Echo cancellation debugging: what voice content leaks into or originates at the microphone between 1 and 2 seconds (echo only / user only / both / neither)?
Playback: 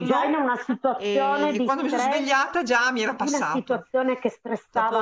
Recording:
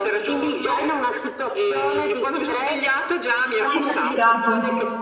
echo only